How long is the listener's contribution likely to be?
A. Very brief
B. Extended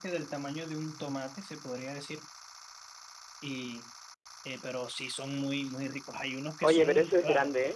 B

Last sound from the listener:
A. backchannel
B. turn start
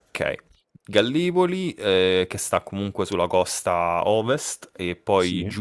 A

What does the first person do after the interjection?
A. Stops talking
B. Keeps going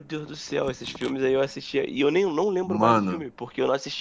B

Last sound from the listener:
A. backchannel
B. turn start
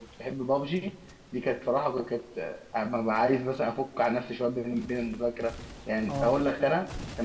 A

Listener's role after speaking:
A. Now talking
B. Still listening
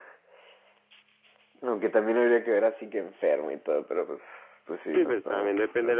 A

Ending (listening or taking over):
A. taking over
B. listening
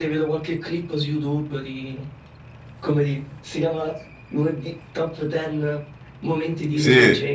A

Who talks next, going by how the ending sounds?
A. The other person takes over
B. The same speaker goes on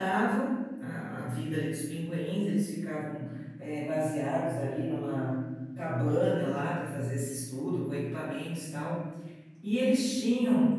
B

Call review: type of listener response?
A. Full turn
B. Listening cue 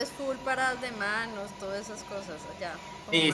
A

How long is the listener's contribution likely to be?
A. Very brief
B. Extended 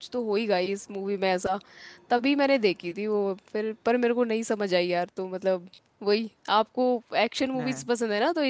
A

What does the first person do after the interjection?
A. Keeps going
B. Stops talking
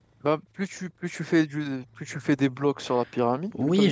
B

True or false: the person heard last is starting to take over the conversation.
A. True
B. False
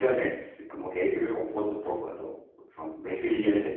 B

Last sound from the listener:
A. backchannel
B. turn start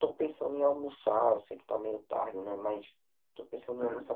A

